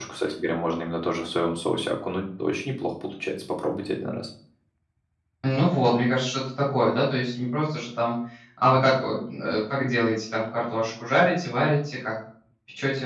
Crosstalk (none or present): none